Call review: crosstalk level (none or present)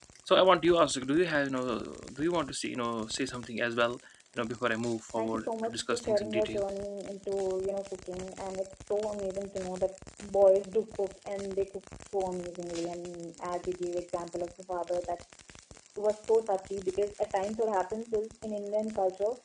present